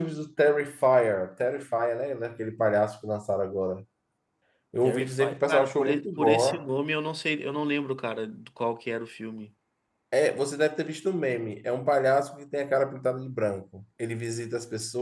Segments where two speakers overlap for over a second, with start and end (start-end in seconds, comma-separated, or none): 4.8-6.7